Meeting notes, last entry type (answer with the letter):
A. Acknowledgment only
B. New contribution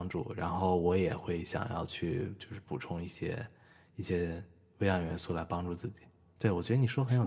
A